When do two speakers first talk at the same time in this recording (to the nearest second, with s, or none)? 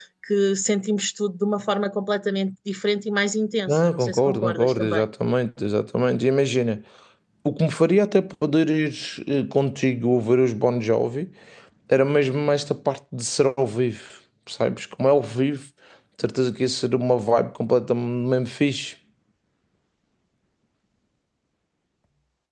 4 s